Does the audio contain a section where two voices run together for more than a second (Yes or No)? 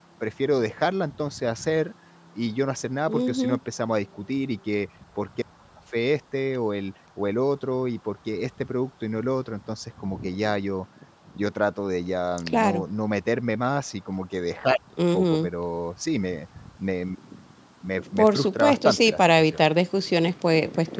Yes